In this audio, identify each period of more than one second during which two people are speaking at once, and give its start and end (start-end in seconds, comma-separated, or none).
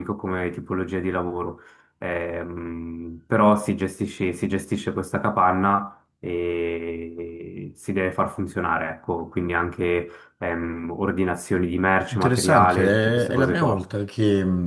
12.1-13.8